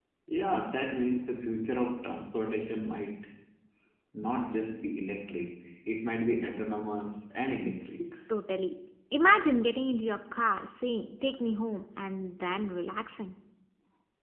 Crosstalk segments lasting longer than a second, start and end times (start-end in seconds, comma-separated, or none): none